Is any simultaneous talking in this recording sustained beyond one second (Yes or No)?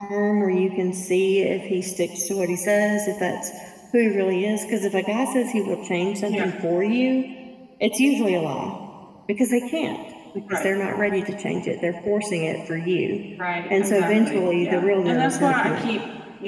Yes